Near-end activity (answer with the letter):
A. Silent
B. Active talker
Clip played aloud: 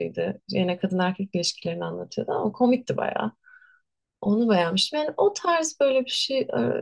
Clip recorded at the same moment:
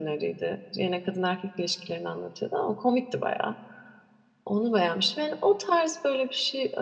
A